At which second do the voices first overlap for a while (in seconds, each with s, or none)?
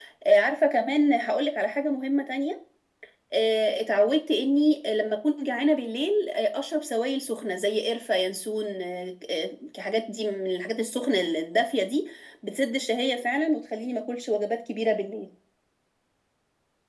none